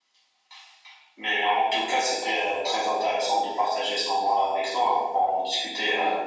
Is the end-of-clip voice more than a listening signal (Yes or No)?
Yes